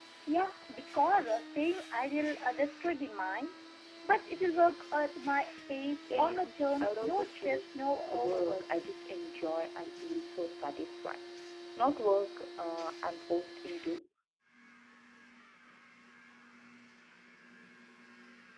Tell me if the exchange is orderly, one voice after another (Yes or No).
No